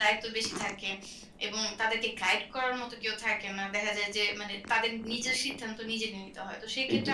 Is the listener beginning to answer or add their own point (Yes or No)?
No